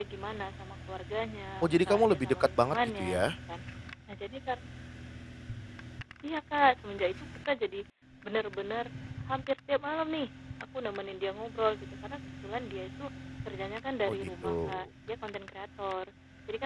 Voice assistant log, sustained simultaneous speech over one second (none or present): present